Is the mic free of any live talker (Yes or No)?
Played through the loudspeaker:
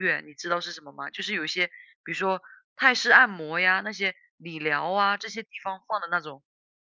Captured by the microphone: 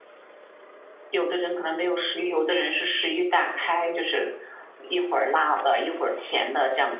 No